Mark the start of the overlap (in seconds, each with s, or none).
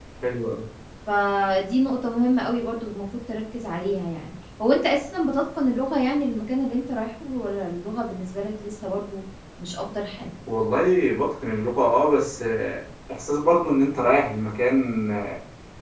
none